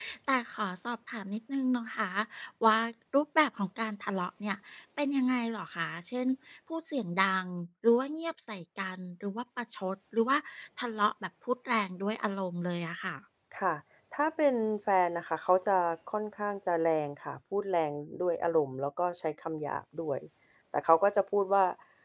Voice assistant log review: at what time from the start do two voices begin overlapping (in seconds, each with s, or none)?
none